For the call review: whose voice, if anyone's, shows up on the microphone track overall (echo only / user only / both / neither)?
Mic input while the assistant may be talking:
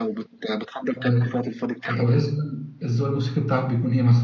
both